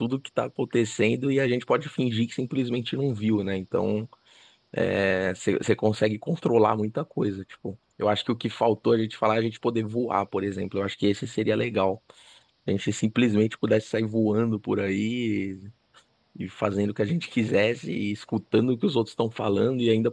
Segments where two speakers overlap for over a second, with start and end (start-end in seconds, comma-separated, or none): none